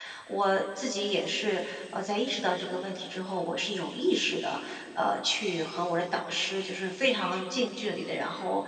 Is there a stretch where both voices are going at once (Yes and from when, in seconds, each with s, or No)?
No